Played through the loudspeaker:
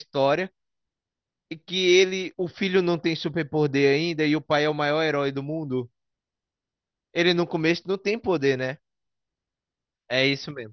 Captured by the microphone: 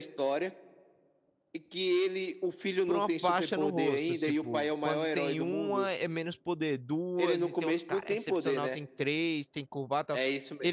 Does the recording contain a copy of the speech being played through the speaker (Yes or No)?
Yes